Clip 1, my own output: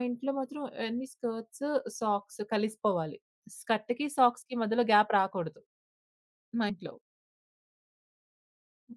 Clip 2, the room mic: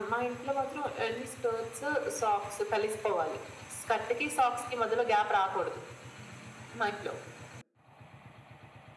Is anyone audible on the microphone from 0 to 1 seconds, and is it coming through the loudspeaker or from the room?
echo only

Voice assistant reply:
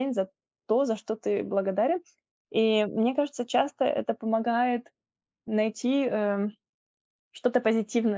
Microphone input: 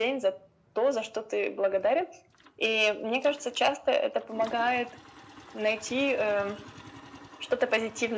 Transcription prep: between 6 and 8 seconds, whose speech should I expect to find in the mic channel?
echo only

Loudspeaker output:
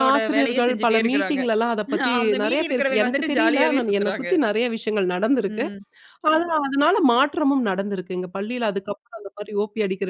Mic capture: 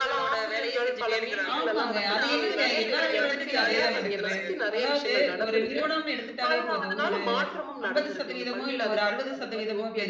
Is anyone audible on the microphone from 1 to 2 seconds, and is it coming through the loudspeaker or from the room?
both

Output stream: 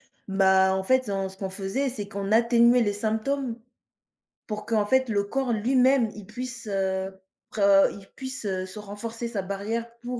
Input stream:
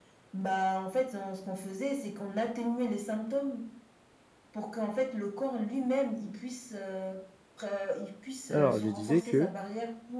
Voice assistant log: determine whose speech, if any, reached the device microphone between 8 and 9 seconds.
both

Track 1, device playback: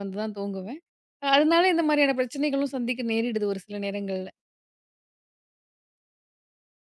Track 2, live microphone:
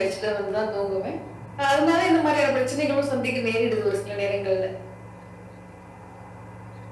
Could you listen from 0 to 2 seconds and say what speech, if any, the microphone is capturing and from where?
echo only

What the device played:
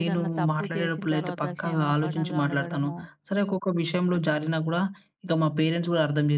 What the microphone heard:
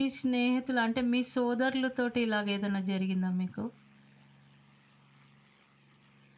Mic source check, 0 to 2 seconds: user only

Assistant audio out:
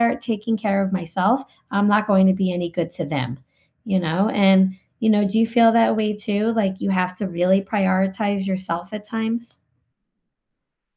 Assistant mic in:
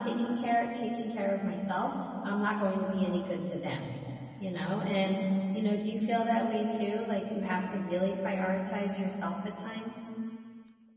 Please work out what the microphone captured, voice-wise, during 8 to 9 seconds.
echo only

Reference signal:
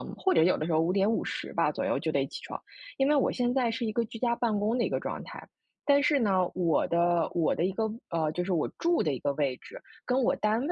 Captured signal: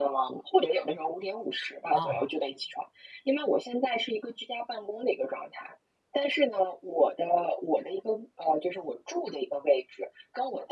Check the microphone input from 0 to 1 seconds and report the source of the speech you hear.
echo only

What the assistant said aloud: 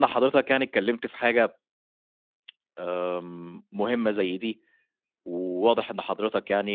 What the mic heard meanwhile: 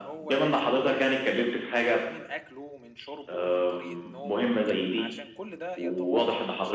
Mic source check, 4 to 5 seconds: both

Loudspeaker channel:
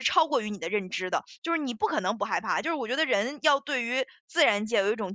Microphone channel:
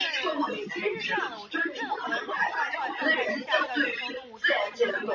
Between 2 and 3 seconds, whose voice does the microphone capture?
both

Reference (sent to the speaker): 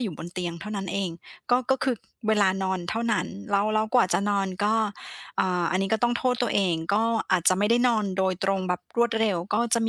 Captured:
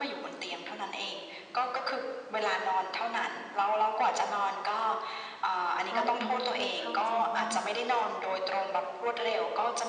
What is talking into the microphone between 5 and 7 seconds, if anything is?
both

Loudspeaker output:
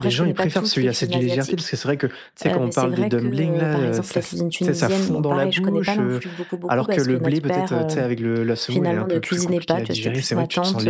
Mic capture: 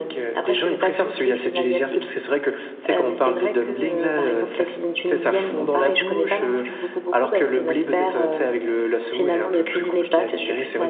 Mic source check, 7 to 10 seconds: echo only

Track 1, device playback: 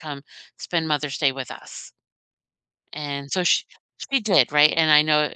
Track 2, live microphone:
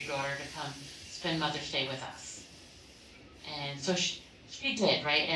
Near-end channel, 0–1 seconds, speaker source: echo only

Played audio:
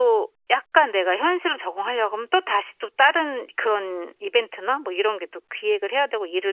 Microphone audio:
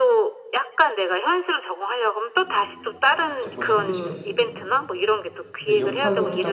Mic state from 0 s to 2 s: echo only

